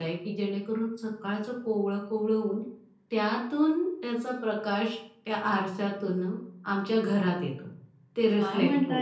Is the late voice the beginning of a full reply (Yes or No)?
Yes